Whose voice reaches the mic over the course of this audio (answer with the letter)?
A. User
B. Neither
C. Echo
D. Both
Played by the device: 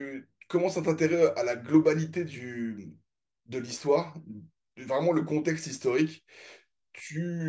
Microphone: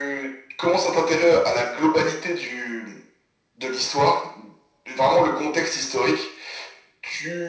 C